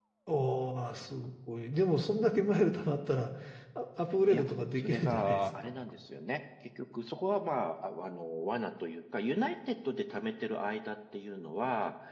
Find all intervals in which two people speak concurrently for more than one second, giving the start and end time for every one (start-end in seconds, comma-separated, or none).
4.3-5.5